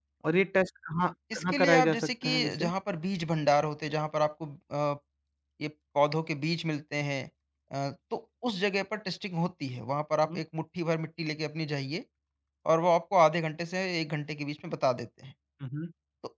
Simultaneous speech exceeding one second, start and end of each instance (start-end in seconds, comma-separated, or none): 1.3-2.7